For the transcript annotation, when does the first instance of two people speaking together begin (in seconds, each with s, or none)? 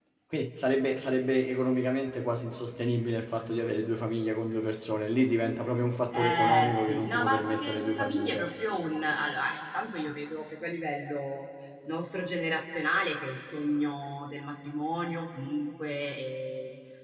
6.1 s